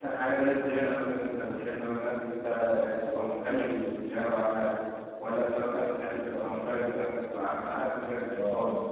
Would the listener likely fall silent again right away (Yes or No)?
No